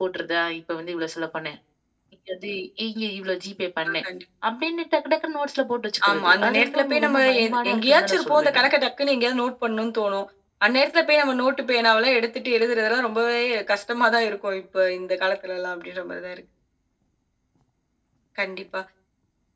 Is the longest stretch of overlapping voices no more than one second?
No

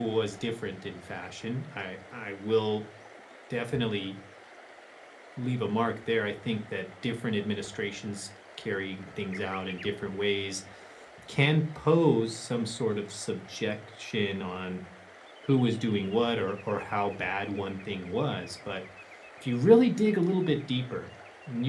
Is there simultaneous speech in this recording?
No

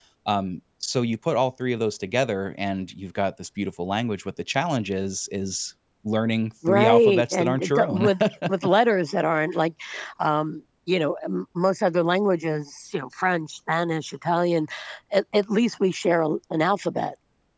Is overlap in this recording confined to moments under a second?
No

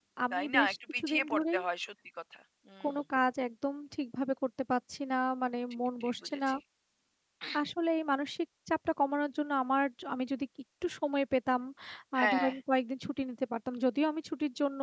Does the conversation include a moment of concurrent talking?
Yes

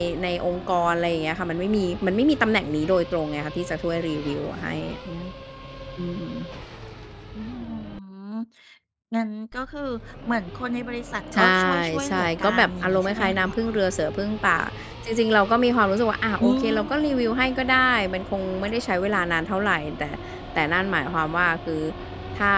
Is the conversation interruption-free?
No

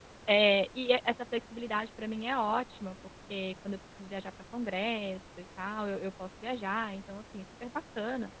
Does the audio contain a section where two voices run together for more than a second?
No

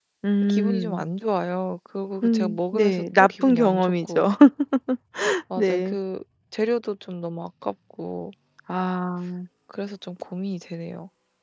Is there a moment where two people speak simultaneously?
Yes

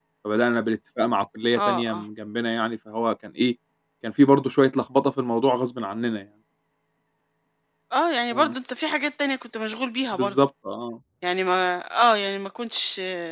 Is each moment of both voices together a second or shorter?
Yes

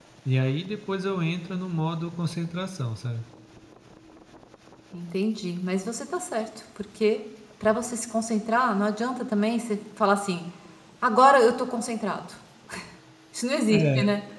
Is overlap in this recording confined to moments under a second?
Yes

